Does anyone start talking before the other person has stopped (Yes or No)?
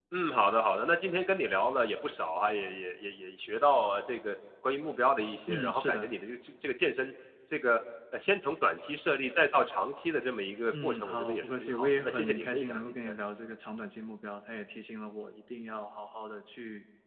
Yes